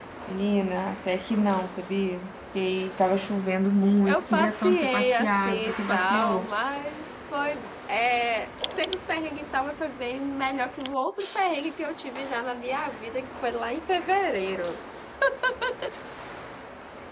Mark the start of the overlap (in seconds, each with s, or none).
4.0 s